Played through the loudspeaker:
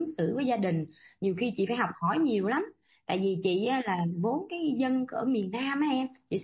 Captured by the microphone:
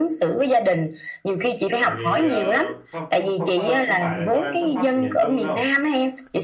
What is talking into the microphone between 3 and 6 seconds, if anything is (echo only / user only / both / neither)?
both